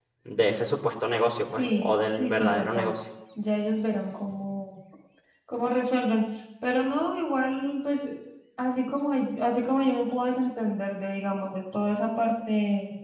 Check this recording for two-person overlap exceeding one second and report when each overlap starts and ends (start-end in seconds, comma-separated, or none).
1.5-2.9